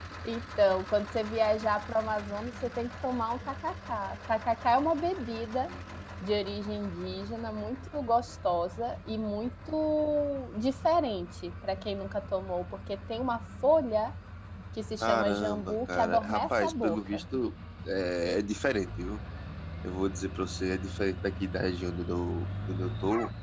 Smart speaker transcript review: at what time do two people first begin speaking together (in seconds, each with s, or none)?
15.0 s